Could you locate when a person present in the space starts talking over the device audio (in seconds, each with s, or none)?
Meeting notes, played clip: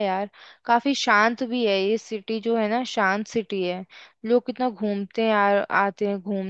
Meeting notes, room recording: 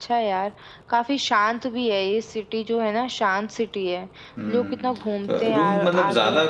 4.4 s